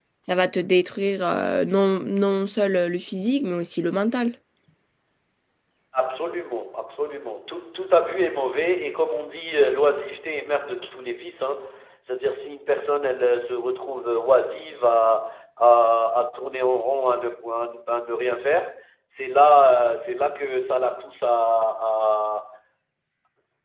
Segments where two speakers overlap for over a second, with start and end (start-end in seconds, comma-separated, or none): none